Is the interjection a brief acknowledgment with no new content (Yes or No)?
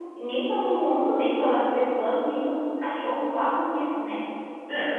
No